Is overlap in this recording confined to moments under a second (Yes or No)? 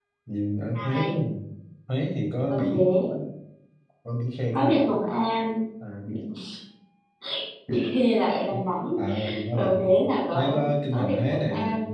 No